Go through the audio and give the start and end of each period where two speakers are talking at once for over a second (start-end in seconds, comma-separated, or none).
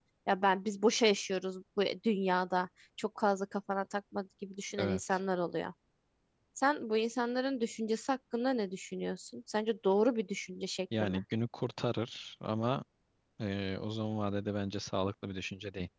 none